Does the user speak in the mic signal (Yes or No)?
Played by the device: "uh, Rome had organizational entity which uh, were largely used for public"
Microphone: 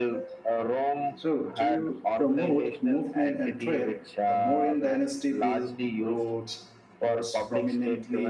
Yes